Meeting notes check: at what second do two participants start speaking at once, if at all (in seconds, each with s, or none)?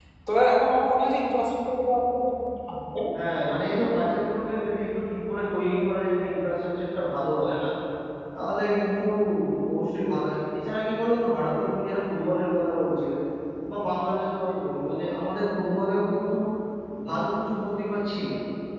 none